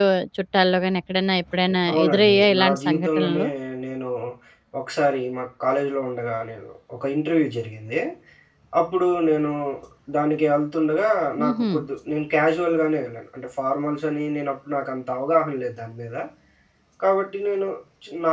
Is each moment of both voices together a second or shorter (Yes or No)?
No